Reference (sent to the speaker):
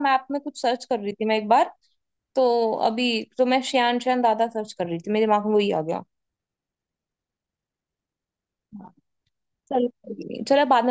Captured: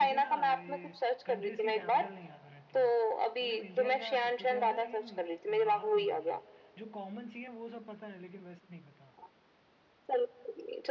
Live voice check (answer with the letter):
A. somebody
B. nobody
A